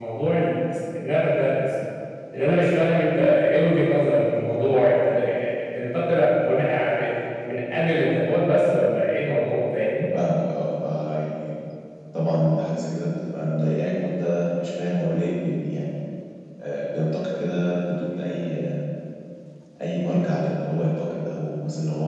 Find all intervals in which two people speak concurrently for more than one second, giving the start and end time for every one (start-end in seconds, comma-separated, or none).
none